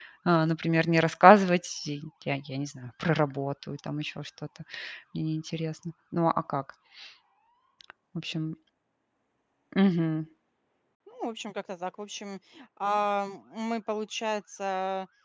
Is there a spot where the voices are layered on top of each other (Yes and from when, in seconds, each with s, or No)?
No